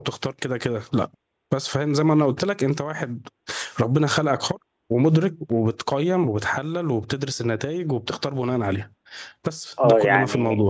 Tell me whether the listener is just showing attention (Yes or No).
No